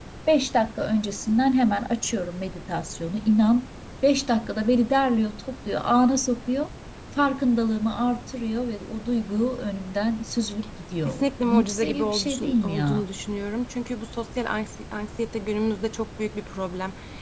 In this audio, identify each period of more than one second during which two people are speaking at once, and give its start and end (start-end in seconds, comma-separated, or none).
11.0-13.1